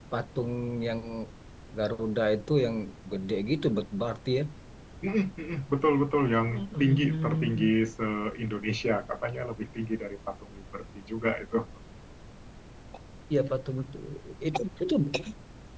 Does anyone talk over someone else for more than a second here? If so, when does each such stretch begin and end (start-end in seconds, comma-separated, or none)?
6.5-7.7